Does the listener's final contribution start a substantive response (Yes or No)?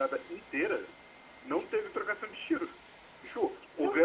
No